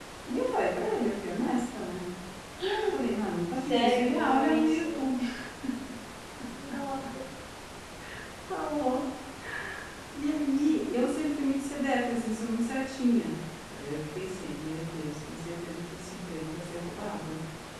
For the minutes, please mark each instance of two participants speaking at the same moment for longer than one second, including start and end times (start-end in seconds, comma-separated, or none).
3.6-5.0